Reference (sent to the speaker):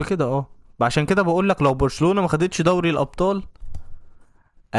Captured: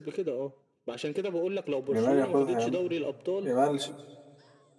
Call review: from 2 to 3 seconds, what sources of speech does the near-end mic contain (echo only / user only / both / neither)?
both